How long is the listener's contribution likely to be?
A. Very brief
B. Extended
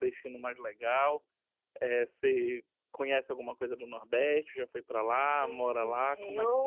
B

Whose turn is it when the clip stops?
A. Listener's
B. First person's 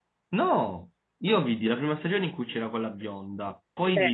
B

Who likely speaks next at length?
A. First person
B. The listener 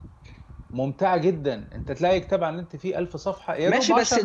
B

